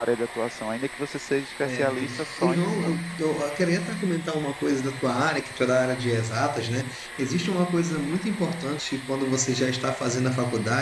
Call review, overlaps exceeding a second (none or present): present